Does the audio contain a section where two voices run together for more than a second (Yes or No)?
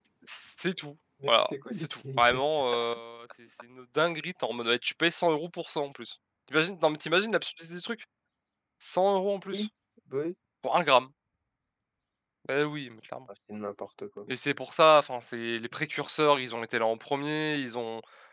Yes